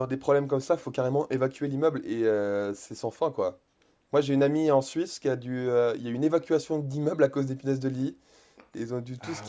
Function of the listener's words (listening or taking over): listening